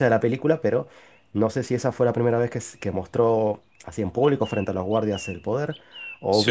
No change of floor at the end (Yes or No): Yes